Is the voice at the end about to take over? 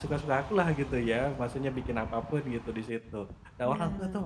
No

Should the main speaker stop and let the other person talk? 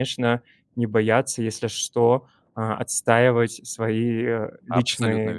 Yes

